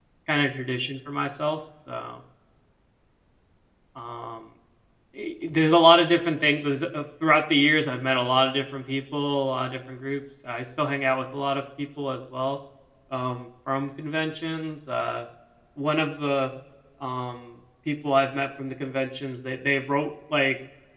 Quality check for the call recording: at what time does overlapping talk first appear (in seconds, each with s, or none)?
none